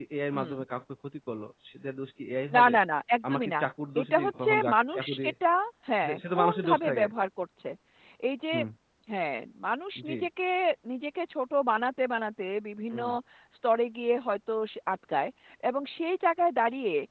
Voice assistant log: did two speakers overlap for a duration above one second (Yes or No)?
Yes